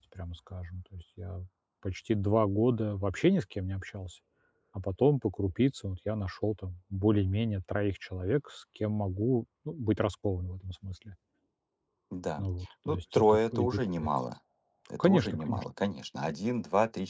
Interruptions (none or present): present